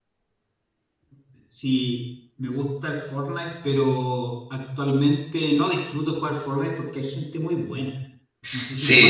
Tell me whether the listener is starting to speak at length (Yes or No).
Yes